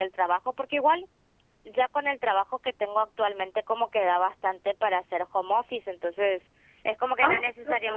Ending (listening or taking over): listening